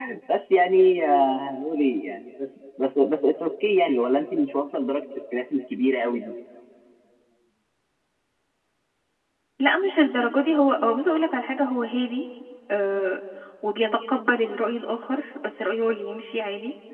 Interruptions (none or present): none